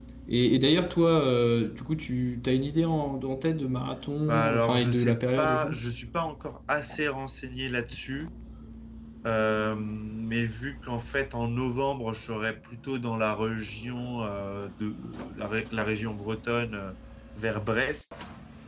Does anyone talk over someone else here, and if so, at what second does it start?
4.3 s

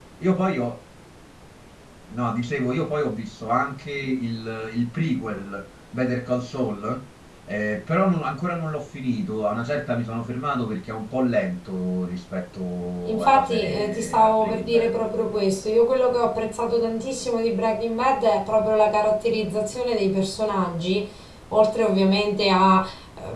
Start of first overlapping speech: 13.1 s

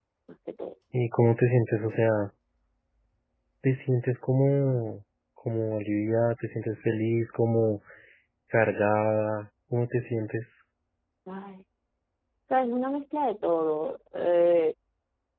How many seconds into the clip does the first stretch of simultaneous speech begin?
none

